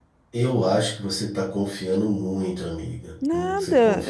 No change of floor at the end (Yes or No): No